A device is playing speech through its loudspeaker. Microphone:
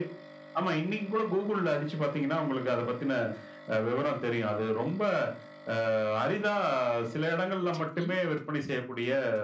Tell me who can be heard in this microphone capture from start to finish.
both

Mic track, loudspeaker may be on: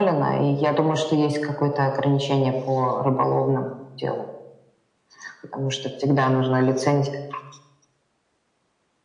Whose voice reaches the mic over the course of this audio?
echo only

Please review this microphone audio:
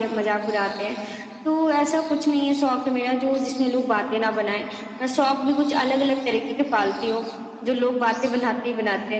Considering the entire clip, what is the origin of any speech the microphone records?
echo only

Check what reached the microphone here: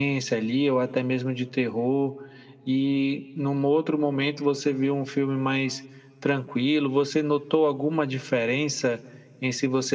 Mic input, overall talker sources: echo only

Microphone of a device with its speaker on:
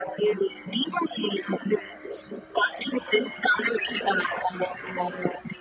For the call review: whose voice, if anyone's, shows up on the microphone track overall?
echo only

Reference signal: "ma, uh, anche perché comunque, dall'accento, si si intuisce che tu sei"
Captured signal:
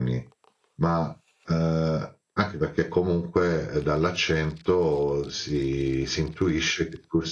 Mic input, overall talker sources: echo only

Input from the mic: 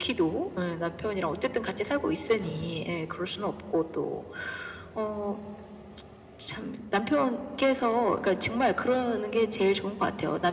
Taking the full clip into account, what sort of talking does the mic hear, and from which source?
echo only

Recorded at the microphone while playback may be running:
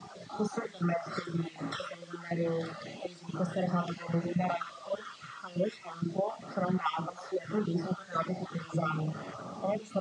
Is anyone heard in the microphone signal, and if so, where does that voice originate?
echo only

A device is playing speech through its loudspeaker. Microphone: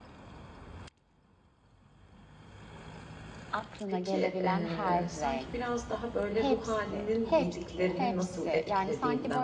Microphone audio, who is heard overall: both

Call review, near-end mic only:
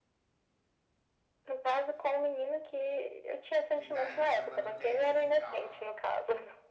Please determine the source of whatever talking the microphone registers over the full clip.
both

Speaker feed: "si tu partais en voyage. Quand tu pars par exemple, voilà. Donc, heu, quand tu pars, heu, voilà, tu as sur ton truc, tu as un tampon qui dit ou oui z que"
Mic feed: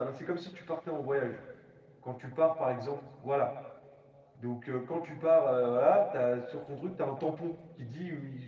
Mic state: echo only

